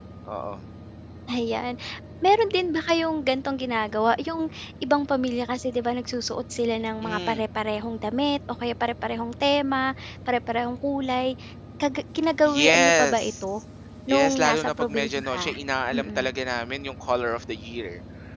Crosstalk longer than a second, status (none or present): present